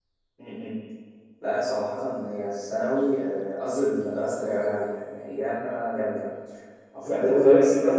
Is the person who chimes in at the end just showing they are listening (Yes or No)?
No